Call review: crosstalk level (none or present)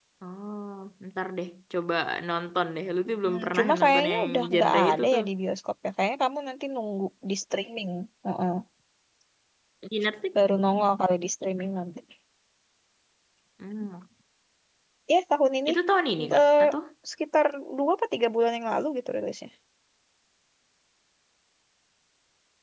present